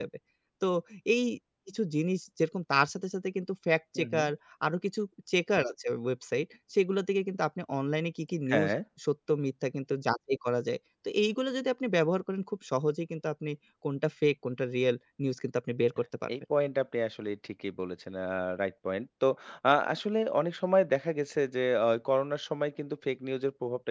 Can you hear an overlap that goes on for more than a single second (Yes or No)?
No